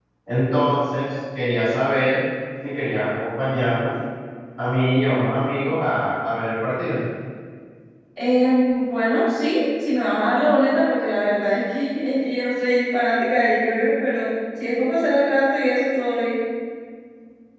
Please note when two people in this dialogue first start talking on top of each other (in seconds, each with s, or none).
none